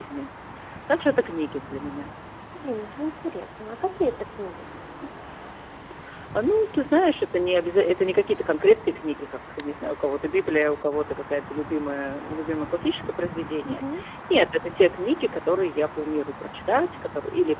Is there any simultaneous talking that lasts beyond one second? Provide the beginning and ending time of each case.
none

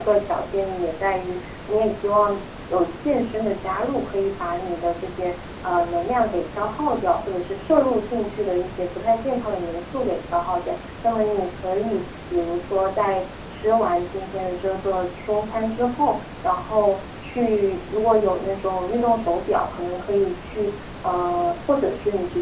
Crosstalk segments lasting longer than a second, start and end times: none

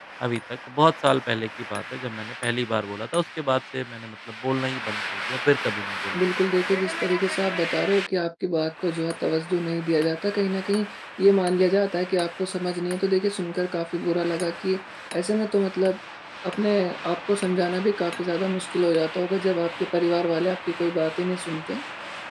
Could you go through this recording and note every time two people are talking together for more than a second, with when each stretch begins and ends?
none

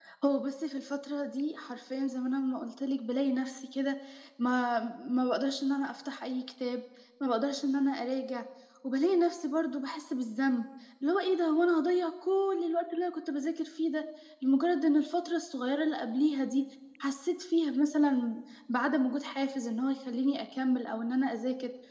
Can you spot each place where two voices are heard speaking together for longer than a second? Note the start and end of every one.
none

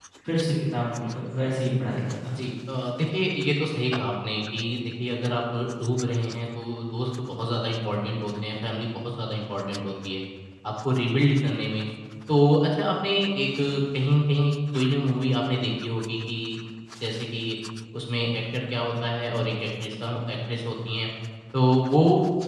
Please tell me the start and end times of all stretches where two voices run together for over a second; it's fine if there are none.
none

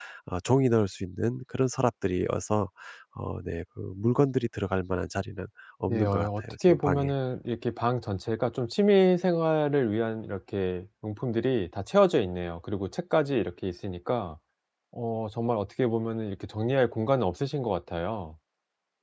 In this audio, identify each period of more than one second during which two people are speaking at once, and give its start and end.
5.8-7.1

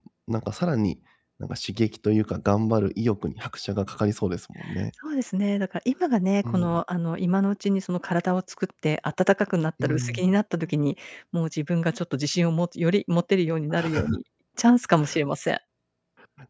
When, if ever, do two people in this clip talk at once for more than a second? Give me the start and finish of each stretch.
none

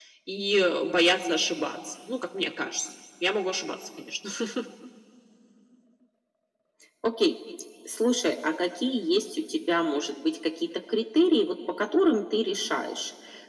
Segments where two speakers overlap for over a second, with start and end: none

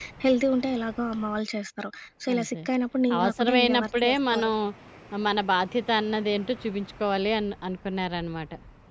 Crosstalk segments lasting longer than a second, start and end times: 3.2-4.5

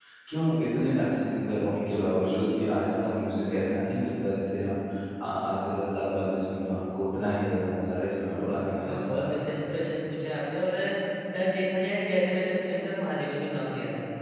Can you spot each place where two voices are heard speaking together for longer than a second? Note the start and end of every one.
7.9-9.6

